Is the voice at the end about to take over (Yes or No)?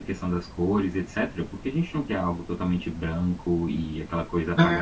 Yes